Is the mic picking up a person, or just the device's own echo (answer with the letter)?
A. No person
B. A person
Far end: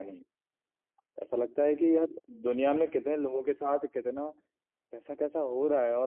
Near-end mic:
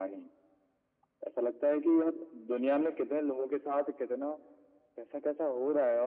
A